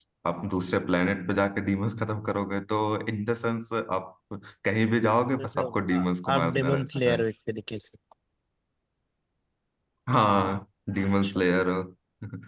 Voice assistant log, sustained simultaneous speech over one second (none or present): present